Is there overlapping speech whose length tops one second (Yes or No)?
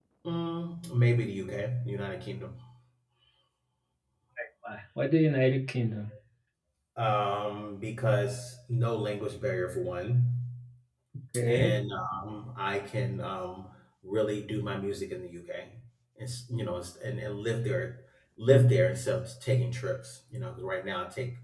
No